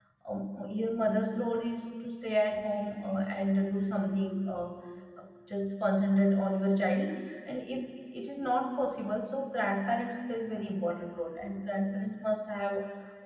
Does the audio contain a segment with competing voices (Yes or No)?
No